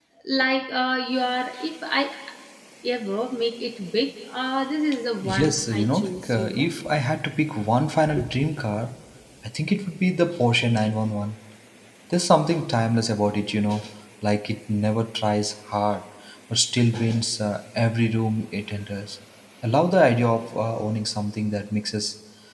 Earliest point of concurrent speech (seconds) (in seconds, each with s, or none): 5.2 s